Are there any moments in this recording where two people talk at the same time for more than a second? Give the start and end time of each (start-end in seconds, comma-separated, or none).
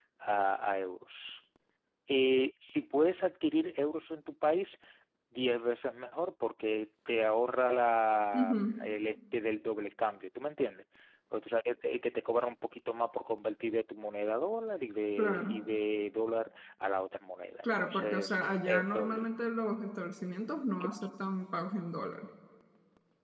17.6-19.2